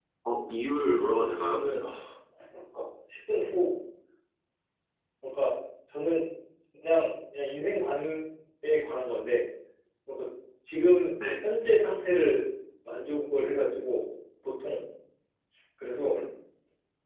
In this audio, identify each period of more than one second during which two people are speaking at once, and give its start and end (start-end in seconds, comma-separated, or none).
none